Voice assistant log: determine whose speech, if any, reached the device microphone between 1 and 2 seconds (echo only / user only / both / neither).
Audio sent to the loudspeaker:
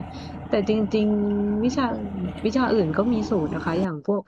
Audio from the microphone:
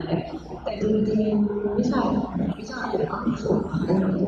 echo only